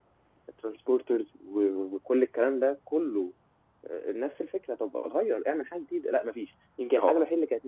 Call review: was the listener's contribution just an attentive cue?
Yes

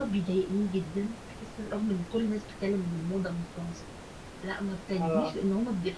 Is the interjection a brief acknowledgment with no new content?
Yes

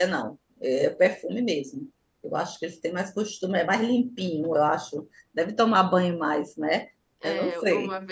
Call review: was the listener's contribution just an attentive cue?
No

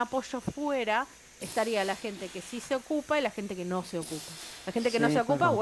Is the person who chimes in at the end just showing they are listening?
Yes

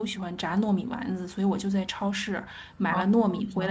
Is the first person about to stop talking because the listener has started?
No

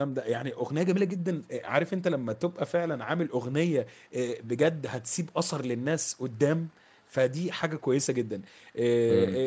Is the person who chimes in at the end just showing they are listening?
Yes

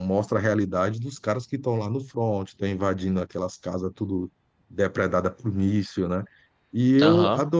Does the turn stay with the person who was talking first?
Yes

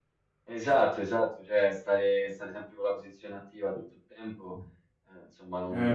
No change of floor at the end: No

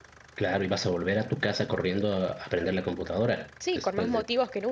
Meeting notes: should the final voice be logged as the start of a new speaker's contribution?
Yes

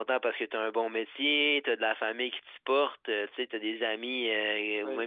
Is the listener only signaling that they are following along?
Yes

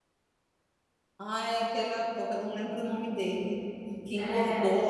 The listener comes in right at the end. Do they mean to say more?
No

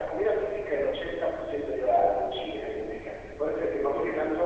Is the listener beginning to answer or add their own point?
No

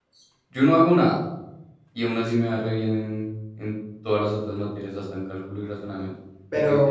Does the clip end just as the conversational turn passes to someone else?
Yes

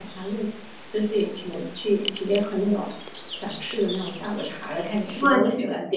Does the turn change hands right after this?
No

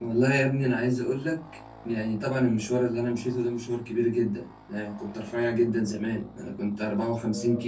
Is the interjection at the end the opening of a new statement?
No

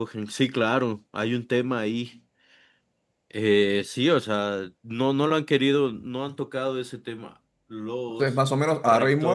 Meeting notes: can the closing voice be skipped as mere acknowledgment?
No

